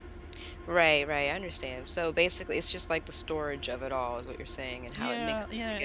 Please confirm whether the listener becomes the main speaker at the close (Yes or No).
Yes